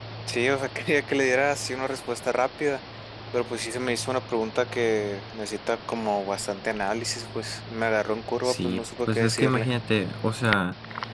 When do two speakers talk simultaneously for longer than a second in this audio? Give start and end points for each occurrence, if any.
8.4-9.7

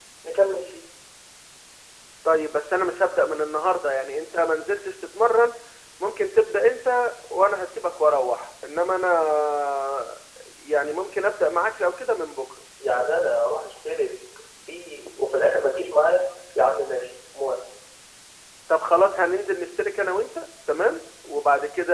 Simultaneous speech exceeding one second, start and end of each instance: none

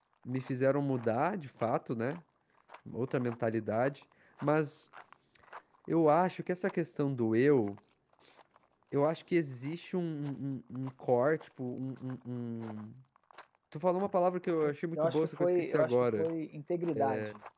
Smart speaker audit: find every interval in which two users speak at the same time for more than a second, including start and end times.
15.0-16.3

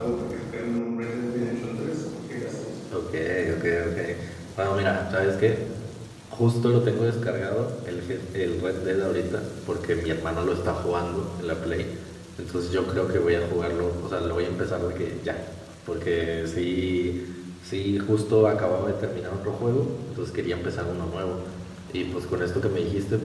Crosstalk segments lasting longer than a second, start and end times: none

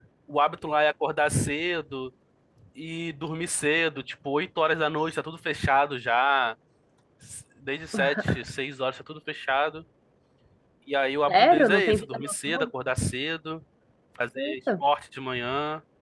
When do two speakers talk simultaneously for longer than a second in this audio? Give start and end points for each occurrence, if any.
11.3-12.7

